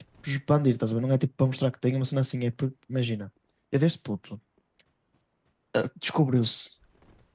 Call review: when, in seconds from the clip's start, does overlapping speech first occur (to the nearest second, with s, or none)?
none